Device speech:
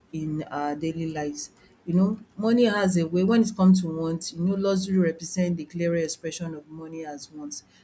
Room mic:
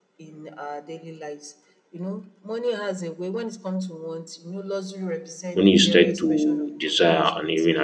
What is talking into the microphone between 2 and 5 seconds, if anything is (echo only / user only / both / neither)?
echo only